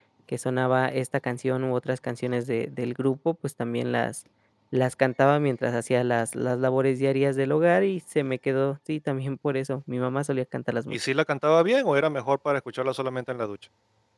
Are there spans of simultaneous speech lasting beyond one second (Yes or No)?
No